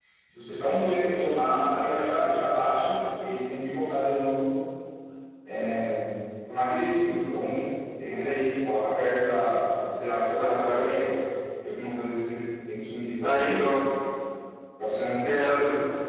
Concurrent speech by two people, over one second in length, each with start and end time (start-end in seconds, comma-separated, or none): none